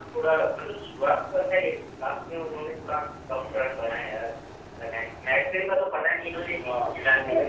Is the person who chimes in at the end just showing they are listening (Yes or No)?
No